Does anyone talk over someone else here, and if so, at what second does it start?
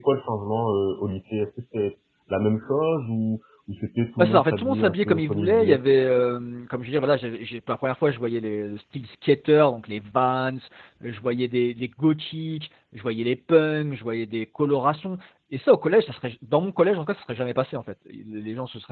4.2 s

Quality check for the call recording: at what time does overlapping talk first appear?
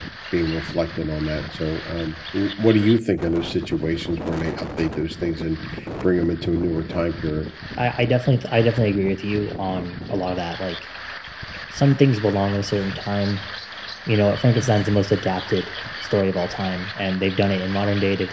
none

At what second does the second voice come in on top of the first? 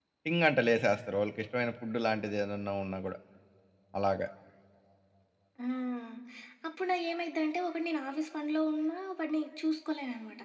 none

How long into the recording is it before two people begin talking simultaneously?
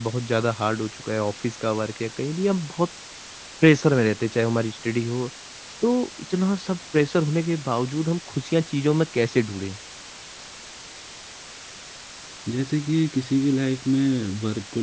none

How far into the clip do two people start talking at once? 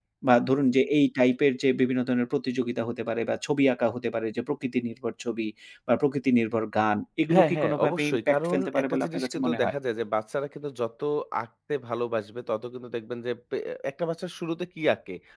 7.3 s

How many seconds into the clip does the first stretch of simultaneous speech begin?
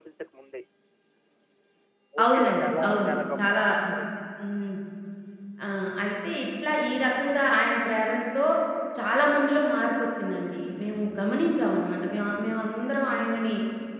2.2 s

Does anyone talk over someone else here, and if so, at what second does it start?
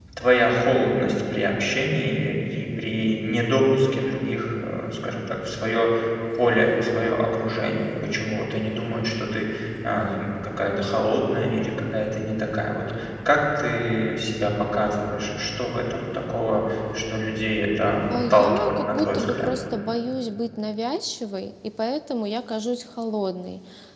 18.1 s

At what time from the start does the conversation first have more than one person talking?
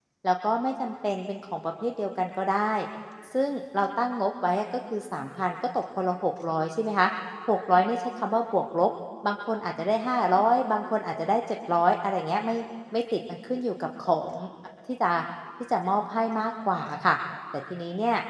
none

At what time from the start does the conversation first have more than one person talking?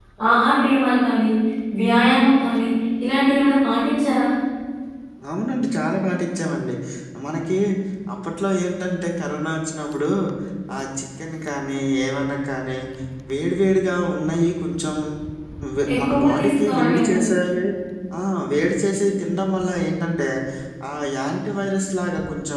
15.9 s

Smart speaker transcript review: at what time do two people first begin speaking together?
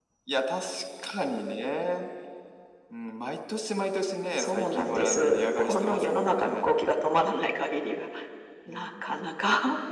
4.4 s

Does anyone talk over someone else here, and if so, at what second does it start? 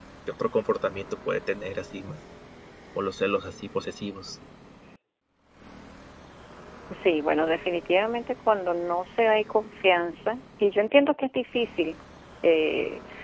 none

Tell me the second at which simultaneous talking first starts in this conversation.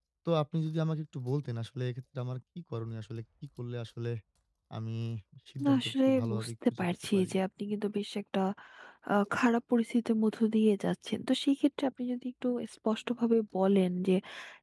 5.6 s

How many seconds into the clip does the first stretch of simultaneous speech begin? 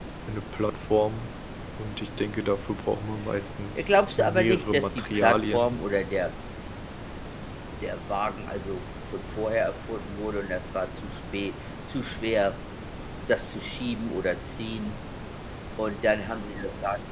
3.8 s

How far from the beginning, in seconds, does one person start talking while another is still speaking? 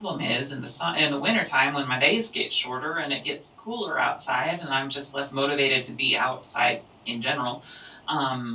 none

